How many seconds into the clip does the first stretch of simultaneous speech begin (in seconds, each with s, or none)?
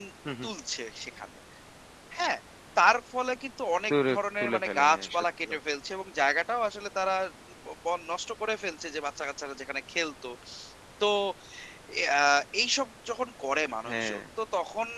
3.9 s